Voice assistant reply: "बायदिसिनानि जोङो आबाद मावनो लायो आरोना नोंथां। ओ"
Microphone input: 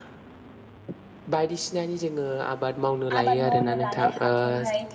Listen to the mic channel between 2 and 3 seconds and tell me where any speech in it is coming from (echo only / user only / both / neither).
echo only